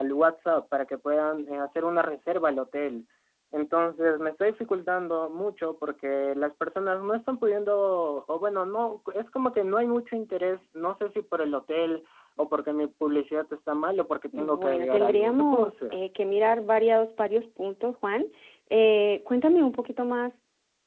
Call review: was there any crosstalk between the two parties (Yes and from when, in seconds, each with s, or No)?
Yes, from 14.3 s